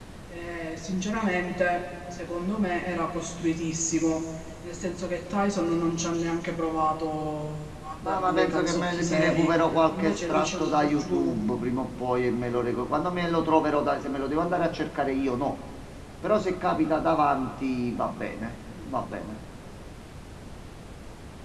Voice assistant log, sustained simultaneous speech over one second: present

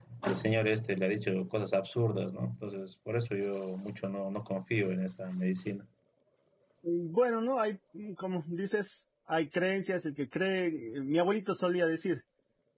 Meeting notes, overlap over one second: none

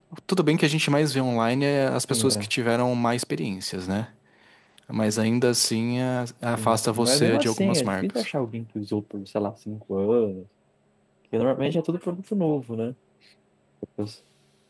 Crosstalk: present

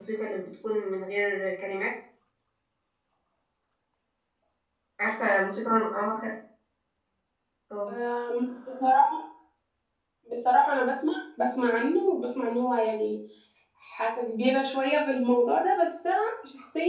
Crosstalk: none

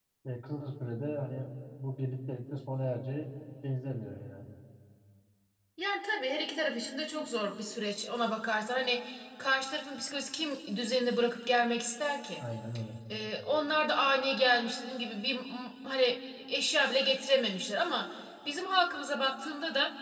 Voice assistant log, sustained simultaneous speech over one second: none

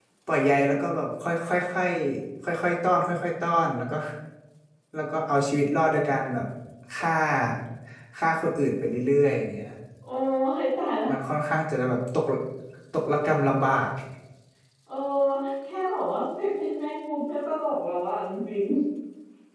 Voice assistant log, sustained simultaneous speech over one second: none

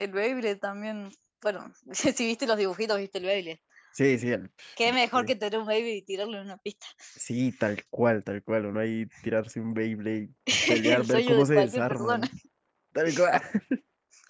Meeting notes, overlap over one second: present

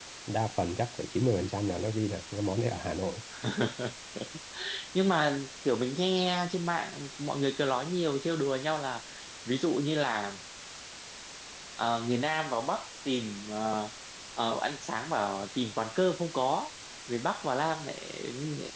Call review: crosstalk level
none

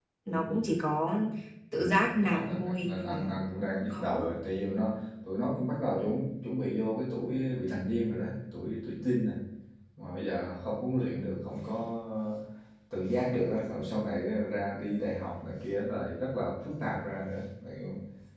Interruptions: present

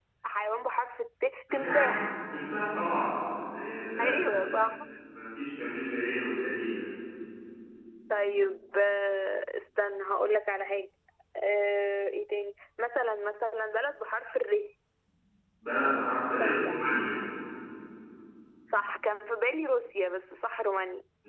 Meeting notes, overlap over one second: none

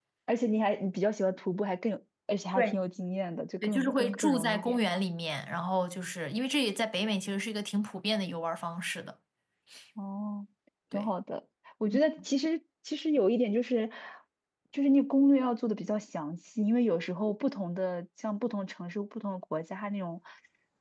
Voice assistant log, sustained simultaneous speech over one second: present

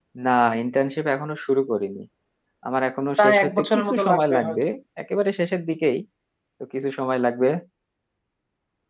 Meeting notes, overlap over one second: present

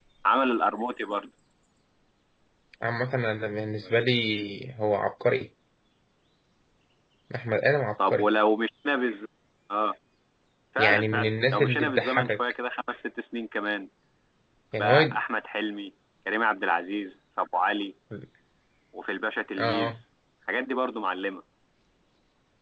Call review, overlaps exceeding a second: present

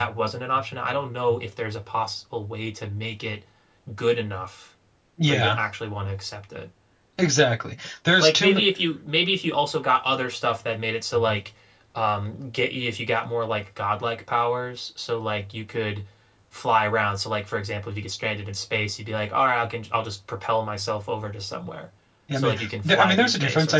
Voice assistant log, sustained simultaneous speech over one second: present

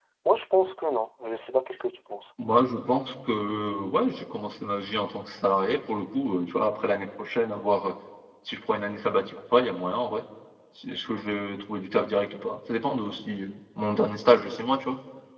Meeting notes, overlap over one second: none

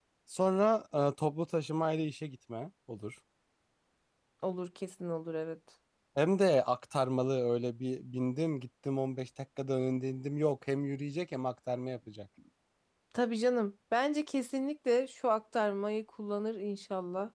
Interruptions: none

